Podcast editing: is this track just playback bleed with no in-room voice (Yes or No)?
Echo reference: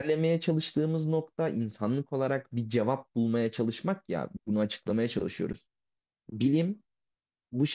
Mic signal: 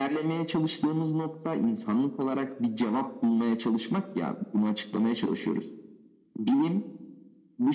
Yes